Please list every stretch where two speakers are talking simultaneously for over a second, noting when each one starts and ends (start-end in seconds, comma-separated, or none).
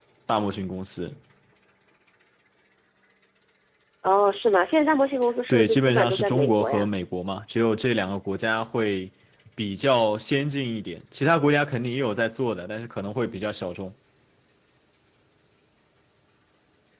5.5-6.9